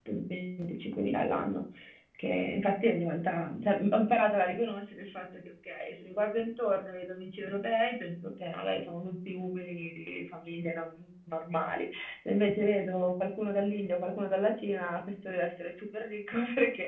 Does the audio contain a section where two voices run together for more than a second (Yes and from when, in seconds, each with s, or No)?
No